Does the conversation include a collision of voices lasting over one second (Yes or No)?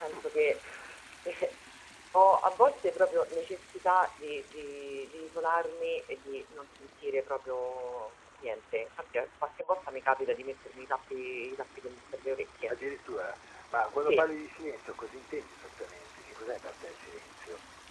No